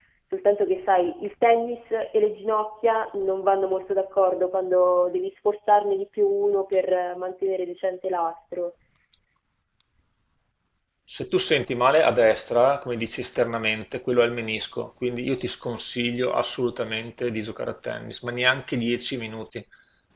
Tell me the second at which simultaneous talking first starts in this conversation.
none

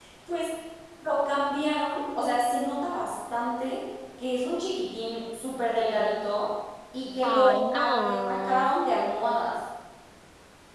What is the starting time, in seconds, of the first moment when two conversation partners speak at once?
7.2 s

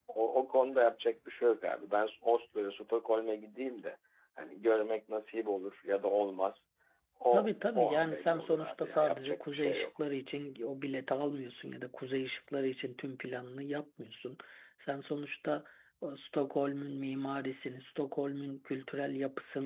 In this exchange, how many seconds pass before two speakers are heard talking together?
7.3 s

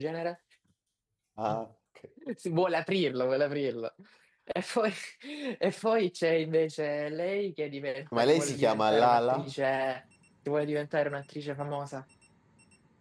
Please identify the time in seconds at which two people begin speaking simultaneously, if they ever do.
8.1 s

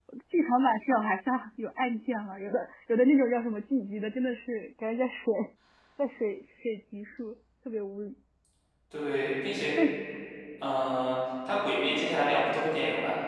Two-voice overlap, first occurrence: none

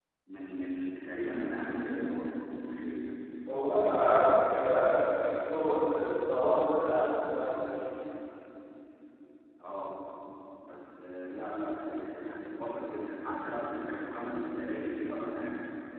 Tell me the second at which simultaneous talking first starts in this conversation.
none

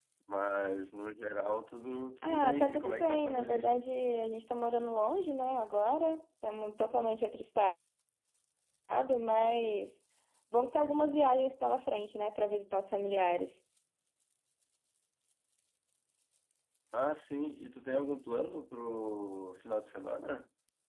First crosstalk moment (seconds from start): 2.2 s

